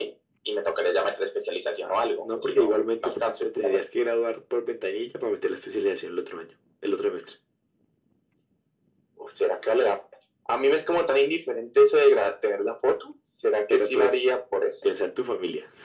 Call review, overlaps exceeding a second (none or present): present